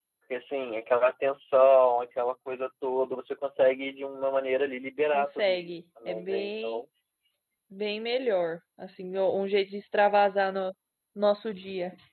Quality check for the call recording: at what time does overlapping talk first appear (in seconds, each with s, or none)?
5.1 s